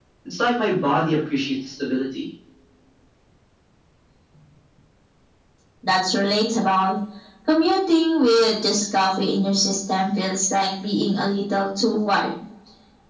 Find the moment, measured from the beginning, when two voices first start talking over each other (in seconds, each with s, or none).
none